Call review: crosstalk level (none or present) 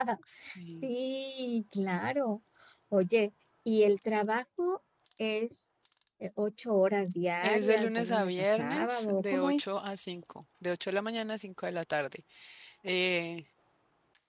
present